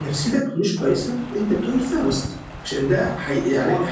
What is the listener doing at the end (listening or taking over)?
listening